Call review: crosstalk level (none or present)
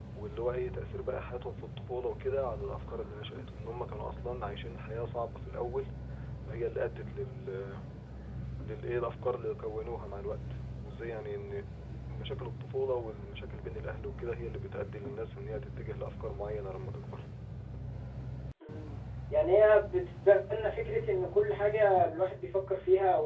none